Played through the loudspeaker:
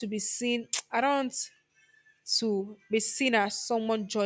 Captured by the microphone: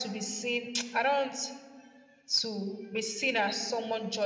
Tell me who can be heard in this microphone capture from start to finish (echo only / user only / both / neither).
echo only